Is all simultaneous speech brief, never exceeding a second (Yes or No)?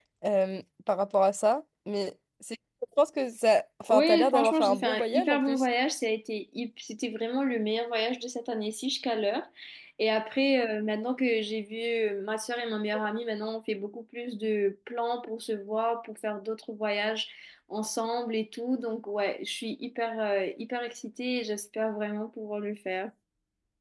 No